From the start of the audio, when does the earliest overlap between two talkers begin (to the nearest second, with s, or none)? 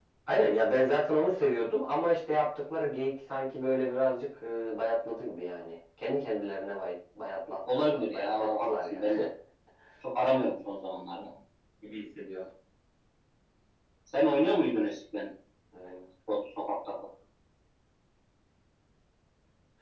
8 s